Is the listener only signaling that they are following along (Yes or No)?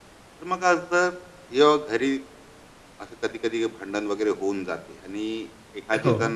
Yes